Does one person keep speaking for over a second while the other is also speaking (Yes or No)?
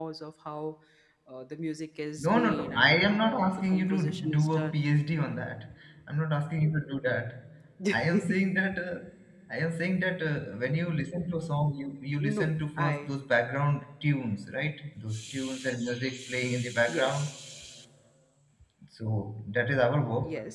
Yes